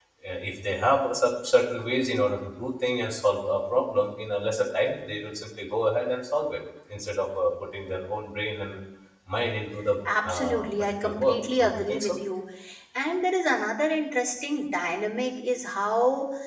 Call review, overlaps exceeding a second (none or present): present